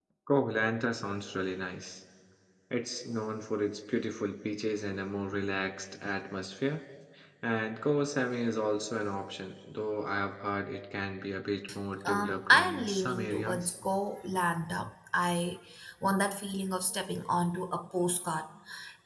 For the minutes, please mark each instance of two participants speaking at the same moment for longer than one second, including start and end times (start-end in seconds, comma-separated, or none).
12.1-13.7